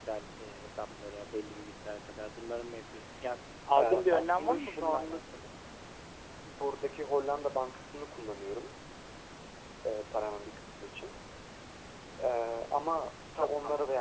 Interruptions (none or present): present